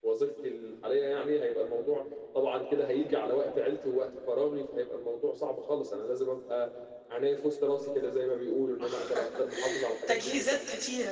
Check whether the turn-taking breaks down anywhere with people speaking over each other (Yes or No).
Yes